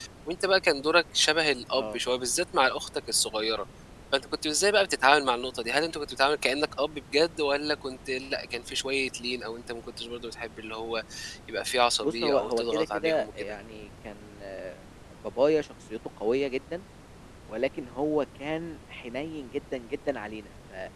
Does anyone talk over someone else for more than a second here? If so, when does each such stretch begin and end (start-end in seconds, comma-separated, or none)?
12.0-13.5